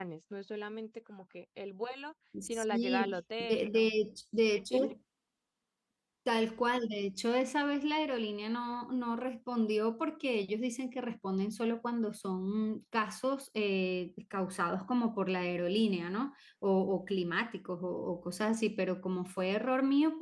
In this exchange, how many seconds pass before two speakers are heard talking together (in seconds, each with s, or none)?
2.3 s